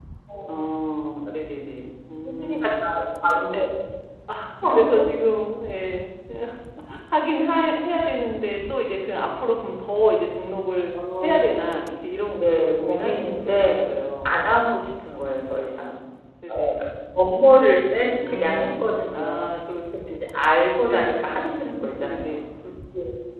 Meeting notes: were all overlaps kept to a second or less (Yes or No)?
No